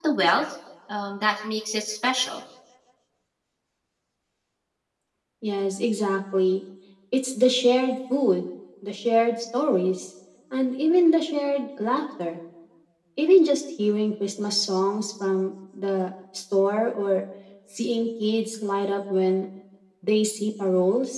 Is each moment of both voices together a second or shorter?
Yes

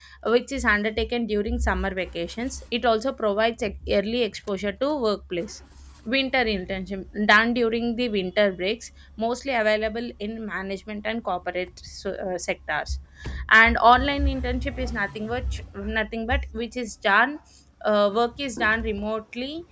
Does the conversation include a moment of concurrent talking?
No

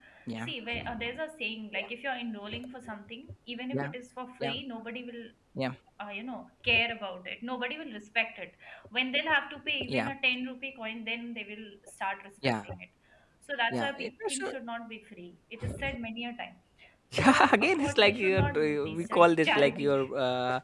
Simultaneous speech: Yes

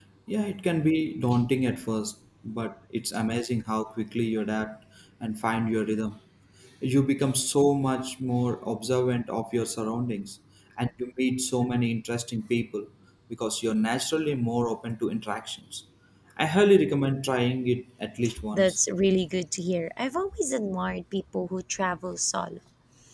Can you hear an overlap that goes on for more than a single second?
No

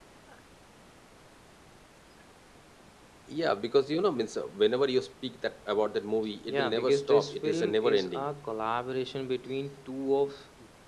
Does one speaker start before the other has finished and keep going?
Yes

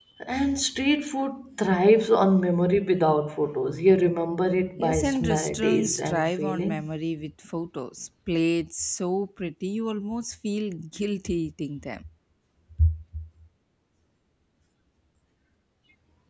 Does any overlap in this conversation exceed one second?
Yes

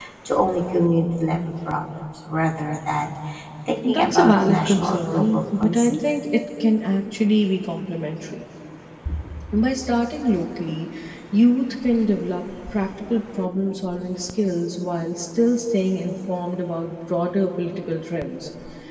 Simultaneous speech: Yes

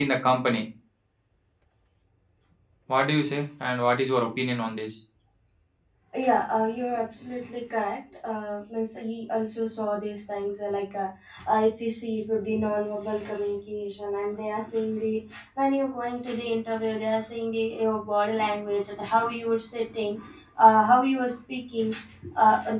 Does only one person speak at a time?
Yes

